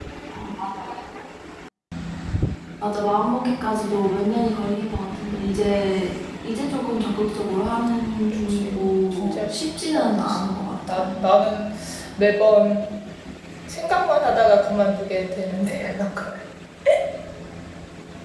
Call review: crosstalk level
present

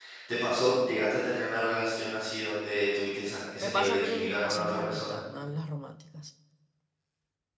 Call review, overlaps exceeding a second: present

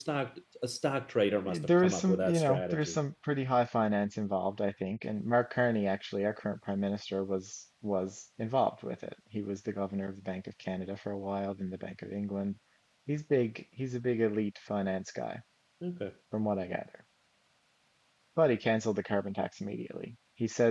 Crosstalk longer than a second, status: present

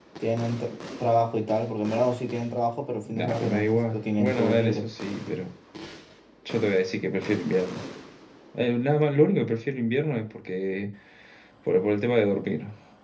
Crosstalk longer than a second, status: present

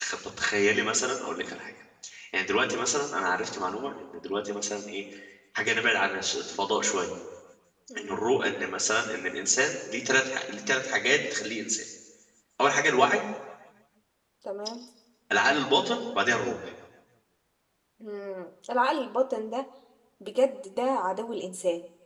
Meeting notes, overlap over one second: none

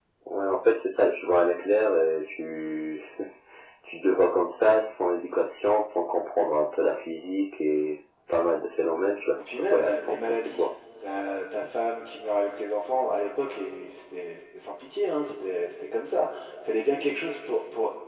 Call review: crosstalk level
present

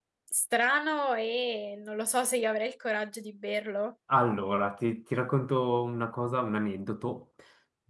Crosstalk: none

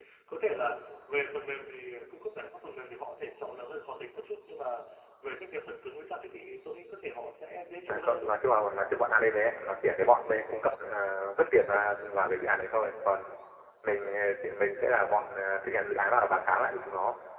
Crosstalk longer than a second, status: none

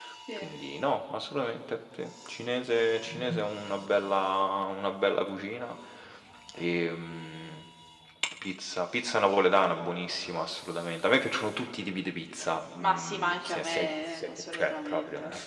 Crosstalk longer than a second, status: present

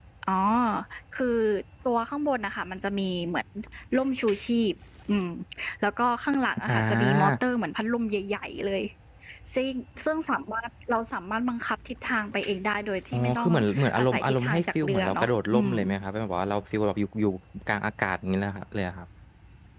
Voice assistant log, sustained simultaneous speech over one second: present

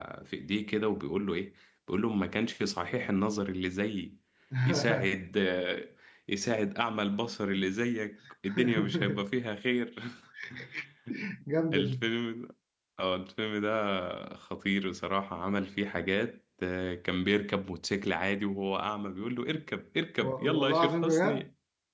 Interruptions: present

